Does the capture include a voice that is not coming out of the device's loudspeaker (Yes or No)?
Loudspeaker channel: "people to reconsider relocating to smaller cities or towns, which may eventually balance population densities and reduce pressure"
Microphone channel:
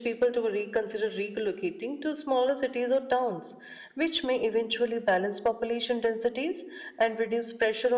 No